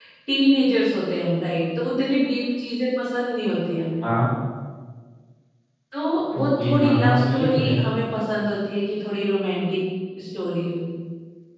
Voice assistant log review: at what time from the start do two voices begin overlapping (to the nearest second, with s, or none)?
6 s